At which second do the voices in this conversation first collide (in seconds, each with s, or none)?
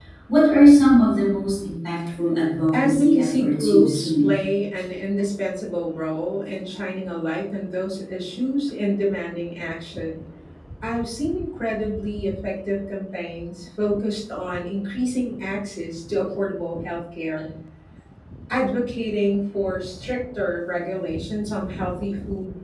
2.7 s